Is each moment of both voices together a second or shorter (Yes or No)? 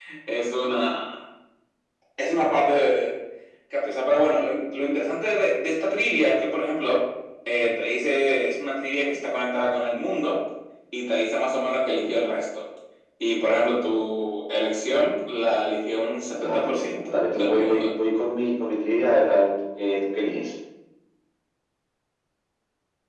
No